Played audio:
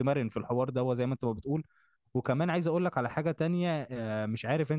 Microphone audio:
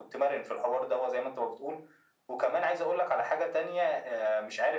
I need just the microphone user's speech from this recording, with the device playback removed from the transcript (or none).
none